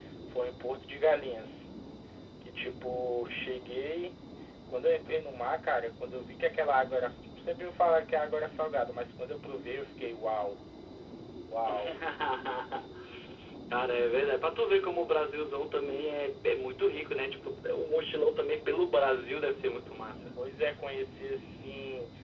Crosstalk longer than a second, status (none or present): none